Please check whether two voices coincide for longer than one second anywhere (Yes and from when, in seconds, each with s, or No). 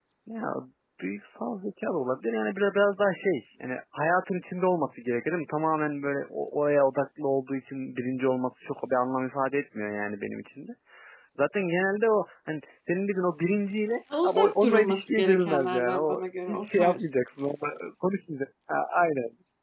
Yes, from 14.1 s